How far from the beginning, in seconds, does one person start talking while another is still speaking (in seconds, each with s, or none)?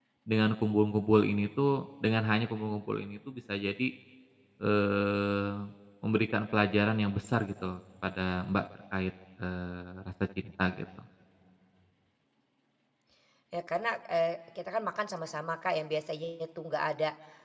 none